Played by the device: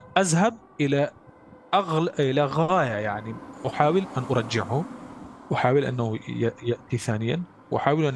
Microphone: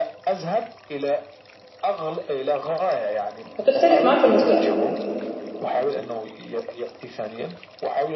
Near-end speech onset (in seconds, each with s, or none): 3.6 s